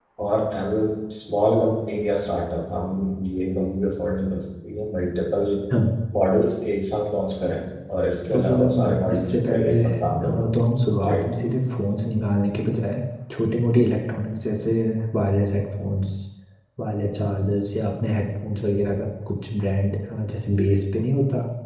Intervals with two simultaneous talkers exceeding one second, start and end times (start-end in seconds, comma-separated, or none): 8.3-10.4